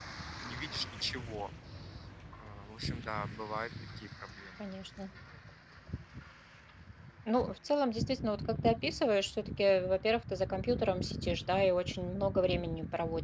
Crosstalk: none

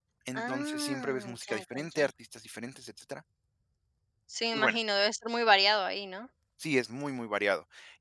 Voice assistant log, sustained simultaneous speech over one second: present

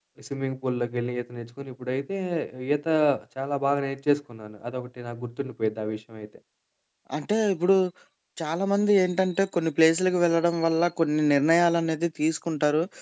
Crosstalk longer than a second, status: none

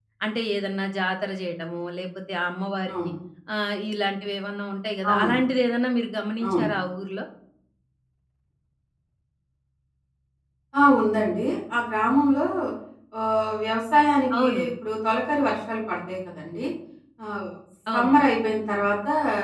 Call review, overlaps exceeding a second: none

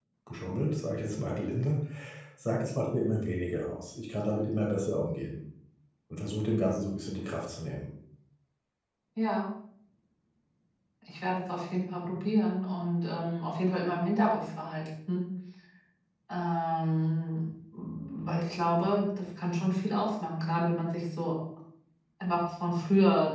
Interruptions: none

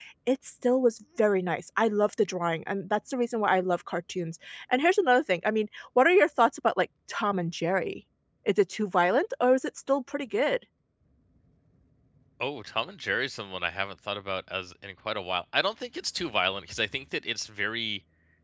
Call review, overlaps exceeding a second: none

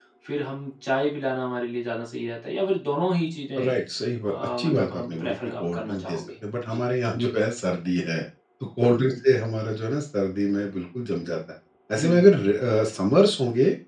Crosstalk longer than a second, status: present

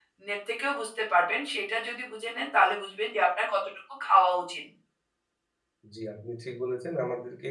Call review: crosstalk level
none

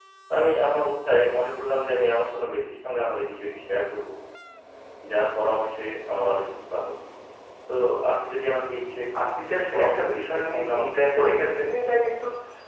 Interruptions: present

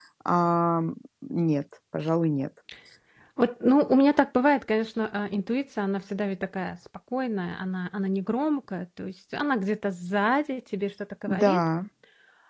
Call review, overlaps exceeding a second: none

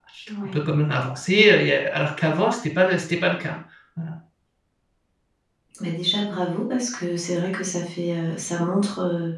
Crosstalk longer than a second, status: none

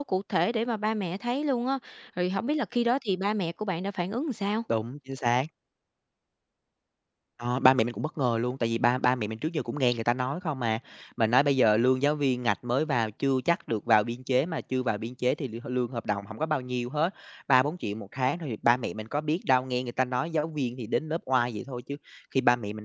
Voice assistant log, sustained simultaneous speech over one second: none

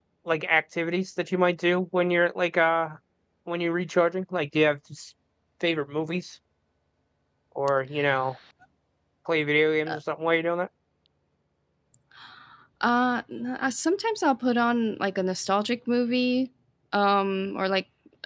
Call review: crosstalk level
none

